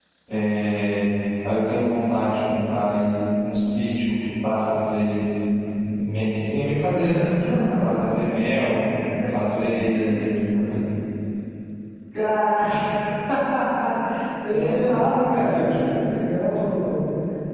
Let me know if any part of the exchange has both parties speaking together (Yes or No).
Yes